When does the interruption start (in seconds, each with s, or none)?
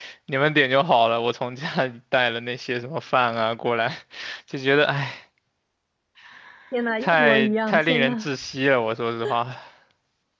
7.0 s